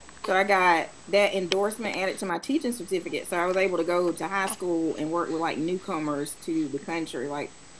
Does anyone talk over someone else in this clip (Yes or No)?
No